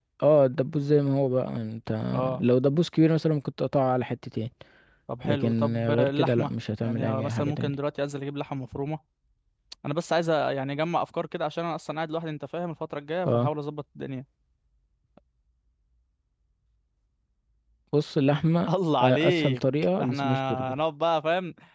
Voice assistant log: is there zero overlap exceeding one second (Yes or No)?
No